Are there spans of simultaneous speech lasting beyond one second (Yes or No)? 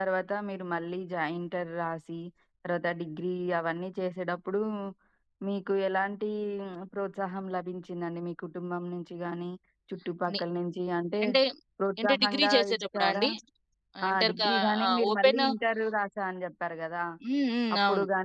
Yes